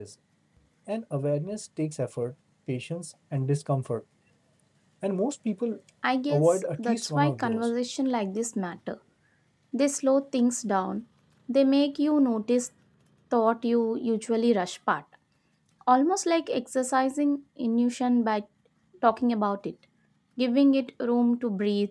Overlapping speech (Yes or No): Yes